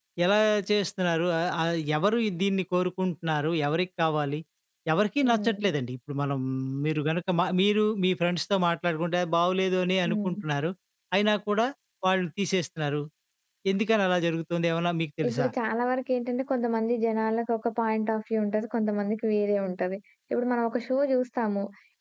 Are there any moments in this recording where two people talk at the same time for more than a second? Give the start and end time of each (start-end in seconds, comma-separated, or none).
none